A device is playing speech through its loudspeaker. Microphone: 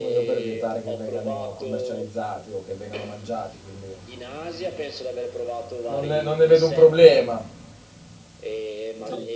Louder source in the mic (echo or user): user